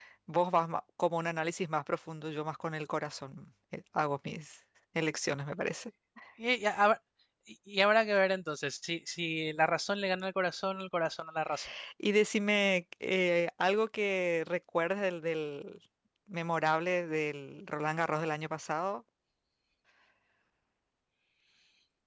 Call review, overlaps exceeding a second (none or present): none